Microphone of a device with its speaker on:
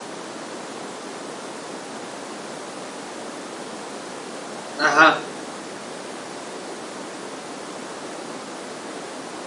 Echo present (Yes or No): No